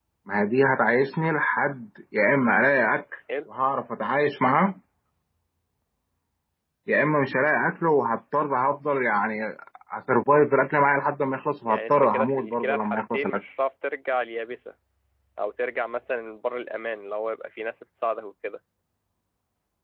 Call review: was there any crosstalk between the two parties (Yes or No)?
Yes